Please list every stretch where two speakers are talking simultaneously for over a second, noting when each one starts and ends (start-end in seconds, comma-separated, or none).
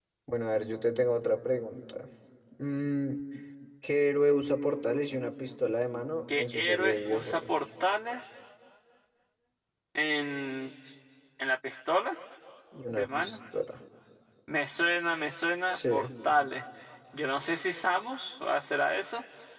6.3-7.6